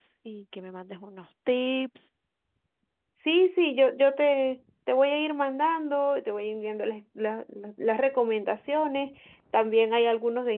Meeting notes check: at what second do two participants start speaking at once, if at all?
none

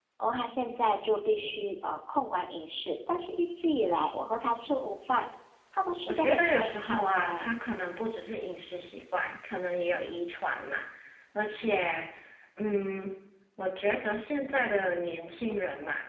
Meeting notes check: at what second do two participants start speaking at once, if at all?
6.1 s

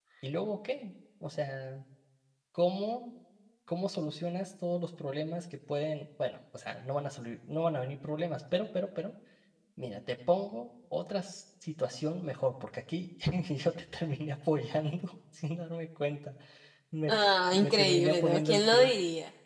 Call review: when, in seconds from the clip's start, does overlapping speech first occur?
17.6 s

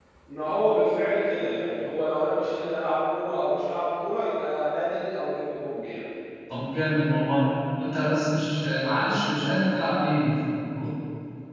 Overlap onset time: none

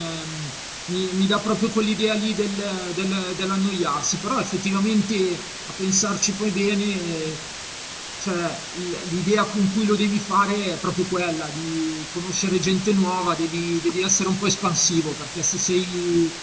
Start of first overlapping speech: none

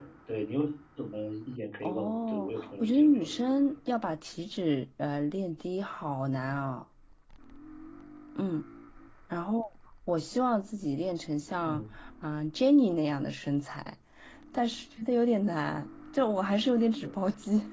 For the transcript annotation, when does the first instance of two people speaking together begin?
1.8 s

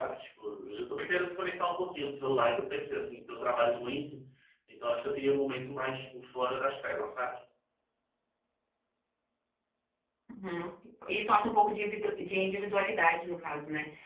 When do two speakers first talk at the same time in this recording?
none

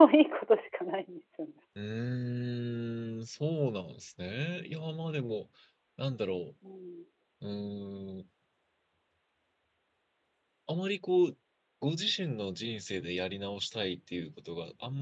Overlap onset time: none

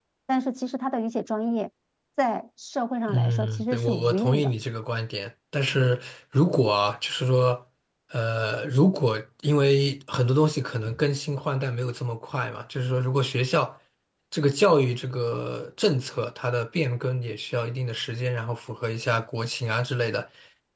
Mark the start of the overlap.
3.1 s

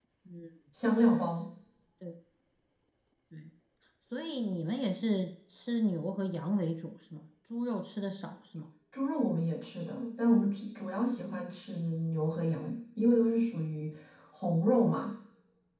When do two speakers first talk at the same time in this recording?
none

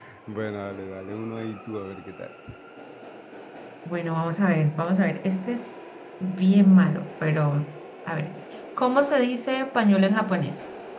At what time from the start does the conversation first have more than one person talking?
none

